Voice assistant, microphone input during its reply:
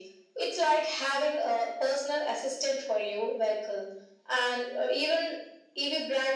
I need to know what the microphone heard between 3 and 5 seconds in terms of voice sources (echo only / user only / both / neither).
echo only